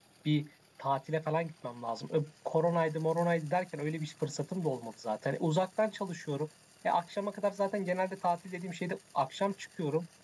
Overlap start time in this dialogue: none

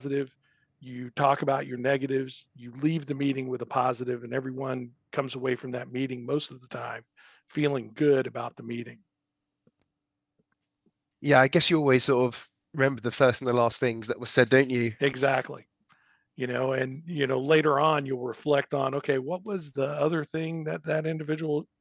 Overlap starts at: none

